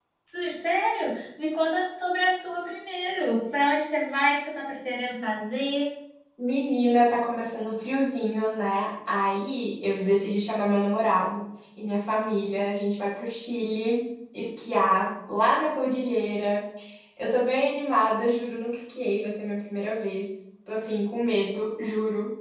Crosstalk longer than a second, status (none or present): none